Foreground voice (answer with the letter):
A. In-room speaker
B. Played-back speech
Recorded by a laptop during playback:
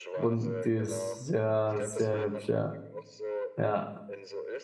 A